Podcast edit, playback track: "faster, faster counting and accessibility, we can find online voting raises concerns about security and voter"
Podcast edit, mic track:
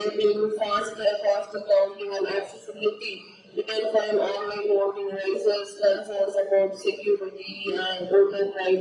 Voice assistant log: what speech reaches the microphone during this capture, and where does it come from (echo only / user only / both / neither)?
echo only